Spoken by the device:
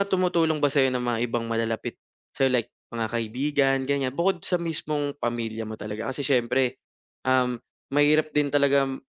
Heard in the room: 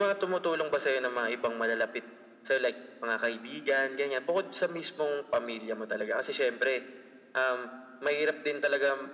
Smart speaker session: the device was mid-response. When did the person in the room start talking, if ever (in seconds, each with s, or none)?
none